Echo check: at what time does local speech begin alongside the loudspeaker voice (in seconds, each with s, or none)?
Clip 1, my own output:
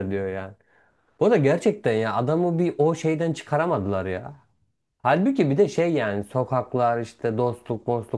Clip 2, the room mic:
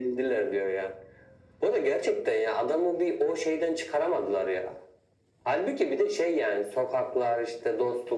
none